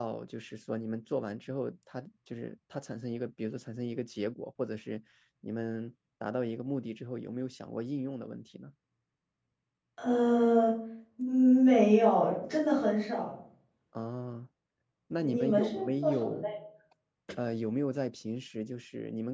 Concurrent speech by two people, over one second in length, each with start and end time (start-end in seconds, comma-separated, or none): 15.2-16.5